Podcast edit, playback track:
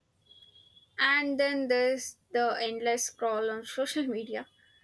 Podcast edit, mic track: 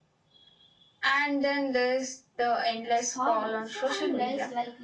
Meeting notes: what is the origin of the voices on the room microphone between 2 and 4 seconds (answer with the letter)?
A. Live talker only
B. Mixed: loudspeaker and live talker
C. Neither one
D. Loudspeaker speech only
B